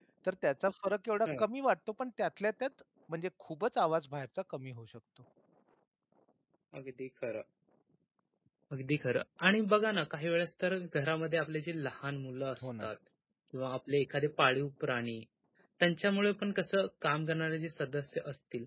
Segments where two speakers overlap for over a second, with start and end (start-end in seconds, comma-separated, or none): none